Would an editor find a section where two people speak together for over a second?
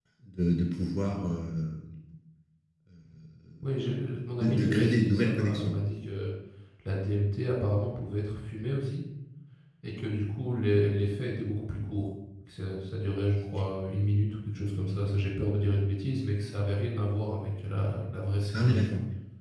Yes, from 4.4 s

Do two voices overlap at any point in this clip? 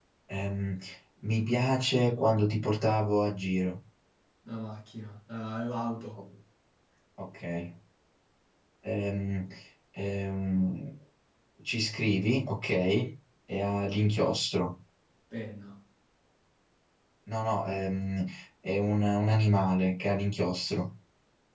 No

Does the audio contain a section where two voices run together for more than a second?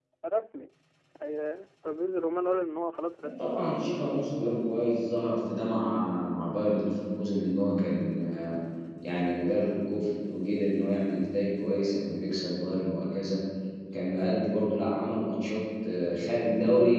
No

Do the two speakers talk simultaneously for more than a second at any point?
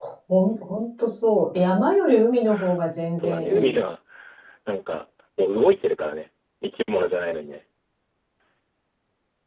No

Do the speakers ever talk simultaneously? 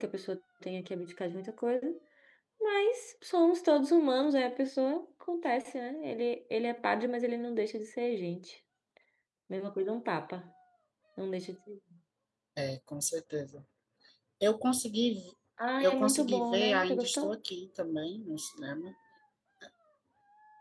Yes, from 15.8 s

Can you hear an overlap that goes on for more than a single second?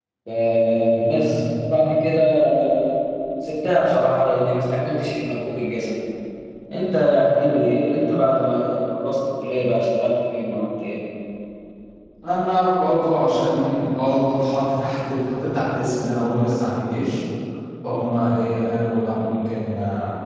No

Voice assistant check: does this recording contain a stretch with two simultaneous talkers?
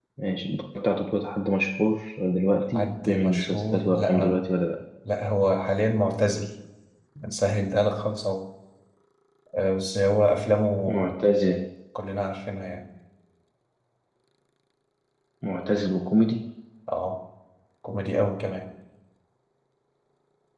Yes, from 2.7 s

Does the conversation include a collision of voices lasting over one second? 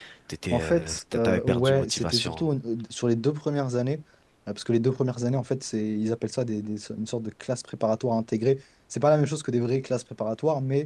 Yes, from 0.5 s

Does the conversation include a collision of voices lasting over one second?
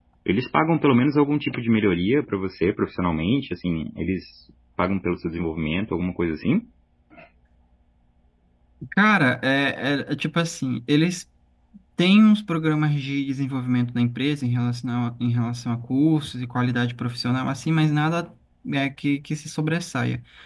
No

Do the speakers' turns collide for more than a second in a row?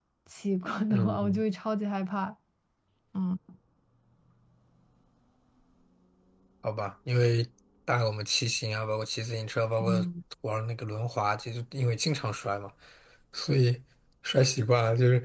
No

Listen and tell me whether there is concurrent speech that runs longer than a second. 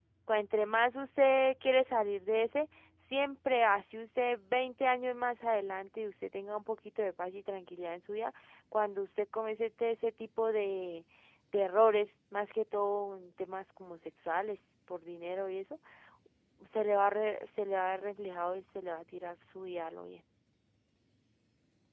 No

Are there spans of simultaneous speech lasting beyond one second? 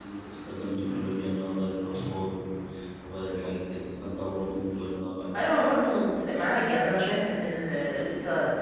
No

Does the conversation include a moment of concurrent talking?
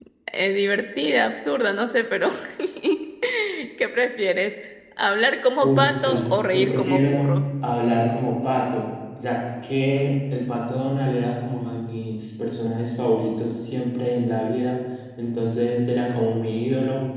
Yes, from 5.6 s

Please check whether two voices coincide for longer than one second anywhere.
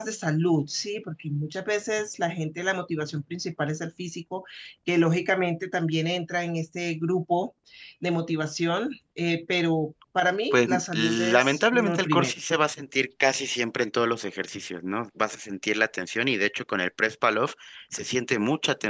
Yes, from 10.5 s

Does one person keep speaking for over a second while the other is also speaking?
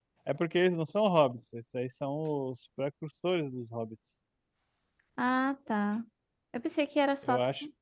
No

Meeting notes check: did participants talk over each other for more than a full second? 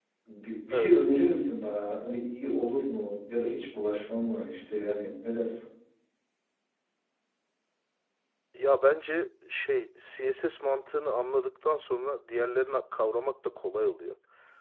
No

